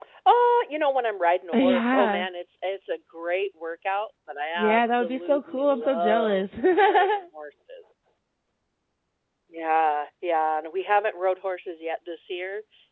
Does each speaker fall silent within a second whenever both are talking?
No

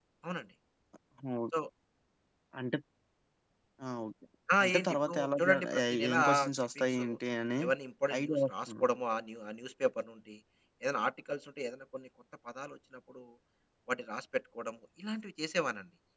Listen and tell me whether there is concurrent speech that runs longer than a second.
Yes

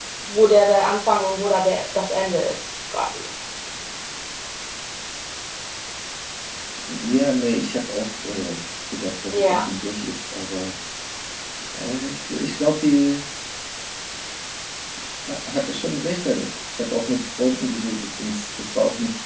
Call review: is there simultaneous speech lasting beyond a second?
No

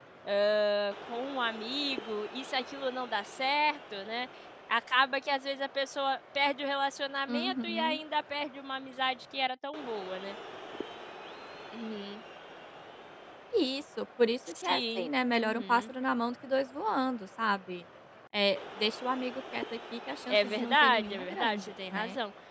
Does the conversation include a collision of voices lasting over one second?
Yes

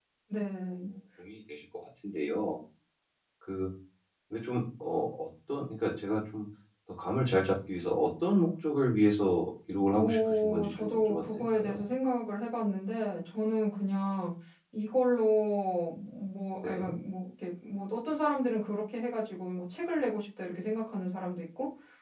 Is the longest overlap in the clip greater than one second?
Yes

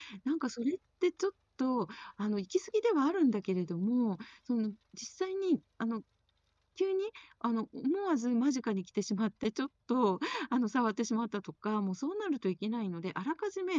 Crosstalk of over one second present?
No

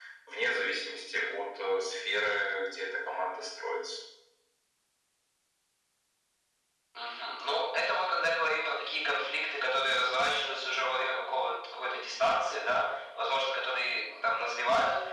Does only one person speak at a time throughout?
Yes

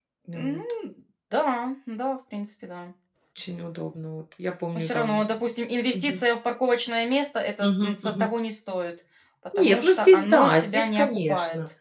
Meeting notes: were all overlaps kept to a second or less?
No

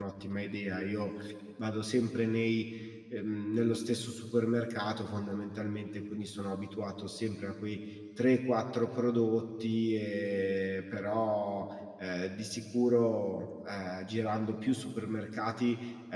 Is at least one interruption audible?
No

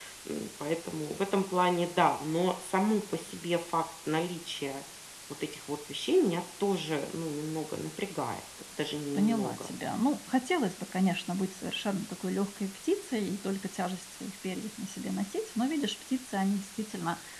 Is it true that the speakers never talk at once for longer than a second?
Yes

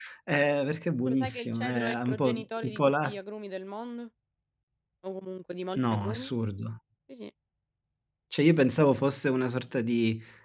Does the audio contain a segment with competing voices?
Yes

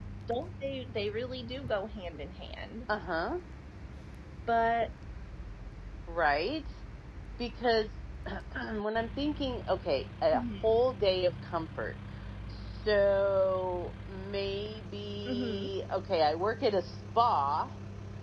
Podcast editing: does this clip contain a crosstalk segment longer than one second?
No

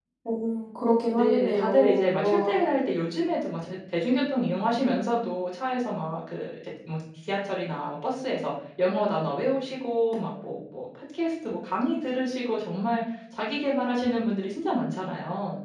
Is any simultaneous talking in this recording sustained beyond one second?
Yes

